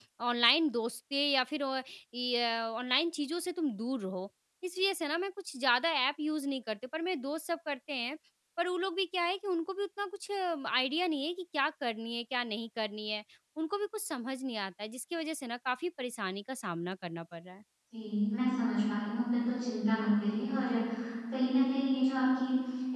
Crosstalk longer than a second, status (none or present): none